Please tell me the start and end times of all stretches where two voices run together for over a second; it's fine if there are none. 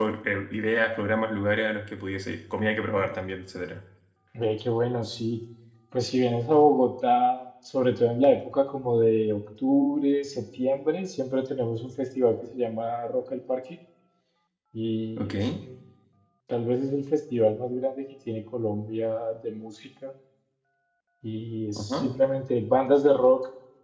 none

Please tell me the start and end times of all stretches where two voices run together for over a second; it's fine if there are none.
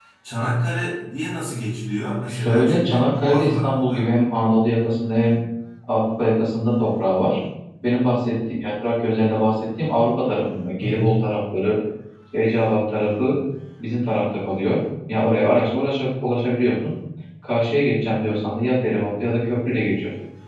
2.3-4.1

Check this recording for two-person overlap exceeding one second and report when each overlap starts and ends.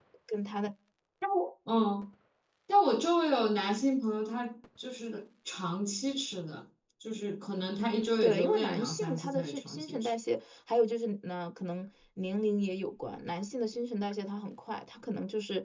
8.2-10.1

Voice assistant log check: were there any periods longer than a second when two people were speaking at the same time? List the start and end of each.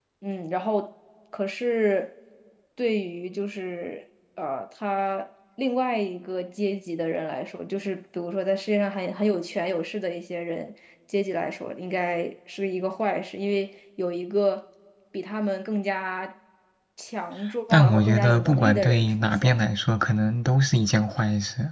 17.7-19.7

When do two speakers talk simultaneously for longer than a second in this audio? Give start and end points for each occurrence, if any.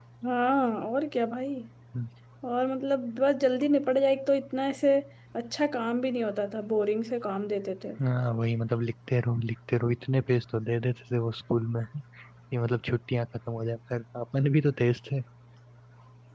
none

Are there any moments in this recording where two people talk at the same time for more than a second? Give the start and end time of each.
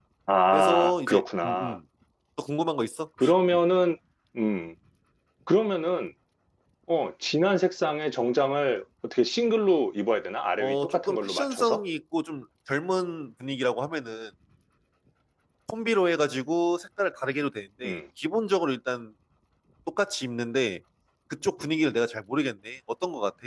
0.5-1.8, 10.6-11.8

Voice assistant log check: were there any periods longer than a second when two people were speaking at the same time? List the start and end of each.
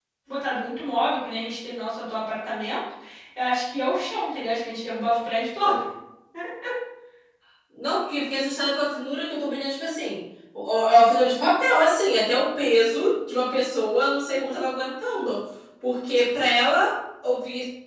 none

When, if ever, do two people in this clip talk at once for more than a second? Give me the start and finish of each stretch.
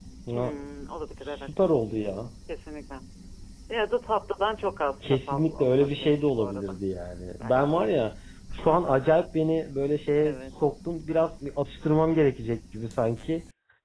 5.0-6.8

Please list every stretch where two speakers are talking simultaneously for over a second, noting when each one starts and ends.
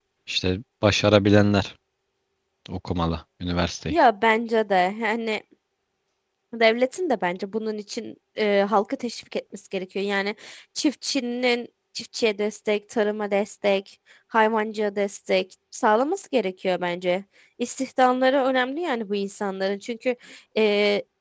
none

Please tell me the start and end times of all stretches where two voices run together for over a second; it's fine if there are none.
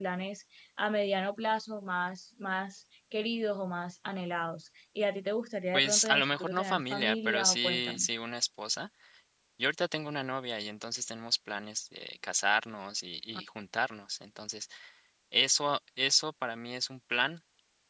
5.7-8.1

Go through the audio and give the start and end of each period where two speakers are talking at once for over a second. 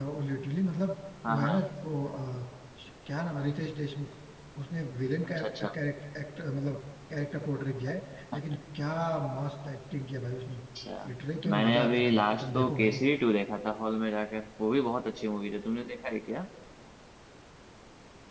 11.5-13.0

